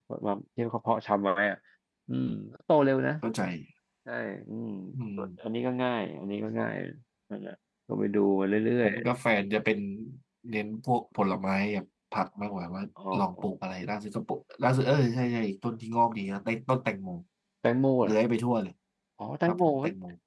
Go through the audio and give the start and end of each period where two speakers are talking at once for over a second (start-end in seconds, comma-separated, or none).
none